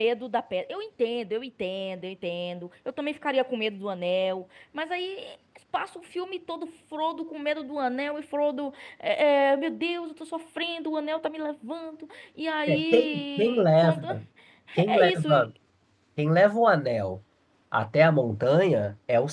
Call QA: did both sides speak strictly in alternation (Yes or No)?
No